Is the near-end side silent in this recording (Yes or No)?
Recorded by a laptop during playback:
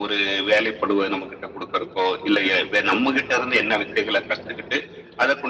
Yes